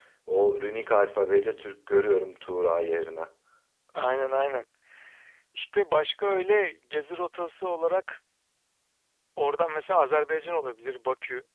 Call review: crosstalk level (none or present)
none